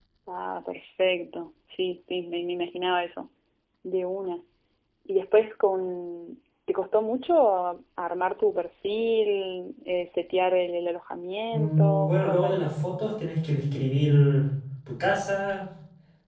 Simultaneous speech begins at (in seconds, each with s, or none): 11.5 s